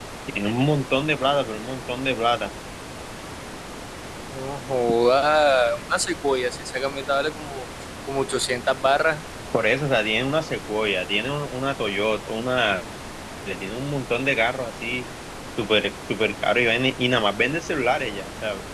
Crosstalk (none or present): none